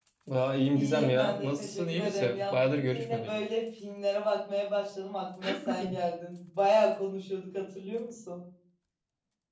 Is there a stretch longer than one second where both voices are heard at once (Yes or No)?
Yes